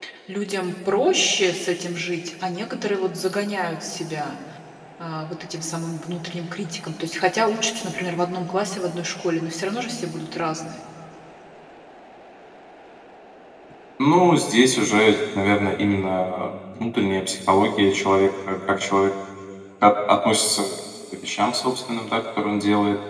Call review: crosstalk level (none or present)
none